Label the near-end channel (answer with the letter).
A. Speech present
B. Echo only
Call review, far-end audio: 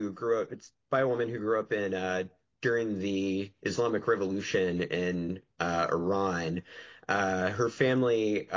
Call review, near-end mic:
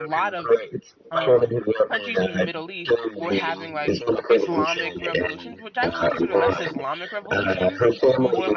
A